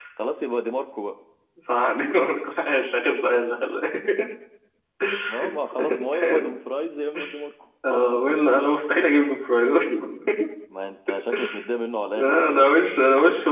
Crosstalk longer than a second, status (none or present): none